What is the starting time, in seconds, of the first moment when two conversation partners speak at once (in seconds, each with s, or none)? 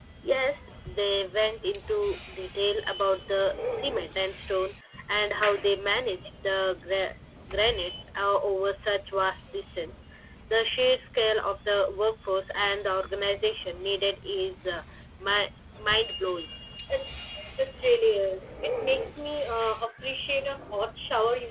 none